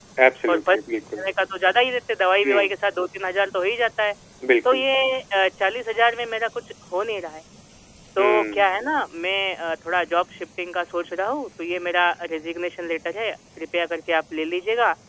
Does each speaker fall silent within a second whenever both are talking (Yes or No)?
Yes